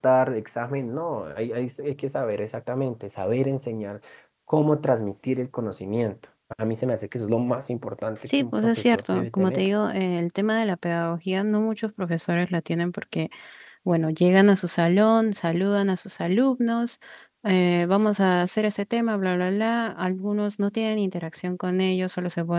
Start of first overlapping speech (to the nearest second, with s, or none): 8 s